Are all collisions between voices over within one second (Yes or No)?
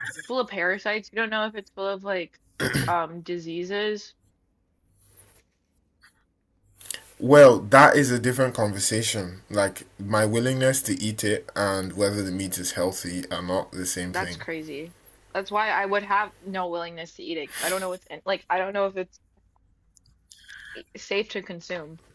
Yes